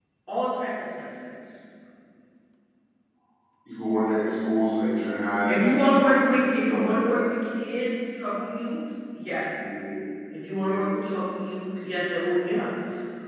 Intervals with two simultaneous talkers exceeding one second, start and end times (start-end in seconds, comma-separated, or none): 5.4-7.2